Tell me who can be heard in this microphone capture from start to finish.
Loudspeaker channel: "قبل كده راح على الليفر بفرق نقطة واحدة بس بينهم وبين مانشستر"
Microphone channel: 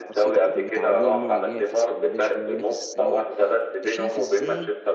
both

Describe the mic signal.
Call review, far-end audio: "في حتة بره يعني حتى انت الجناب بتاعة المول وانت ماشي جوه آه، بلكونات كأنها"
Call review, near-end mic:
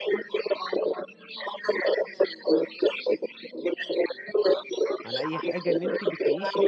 both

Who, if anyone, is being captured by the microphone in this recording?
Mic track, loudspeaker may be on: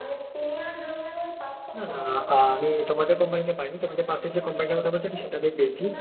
both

